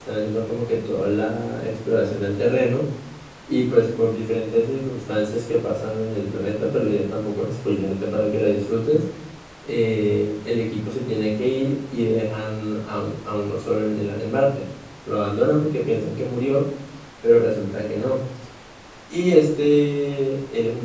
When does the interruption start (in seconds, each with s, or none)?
none